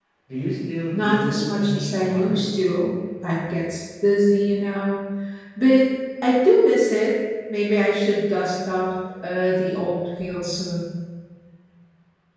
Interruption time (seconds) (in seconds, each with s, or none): 0.9 s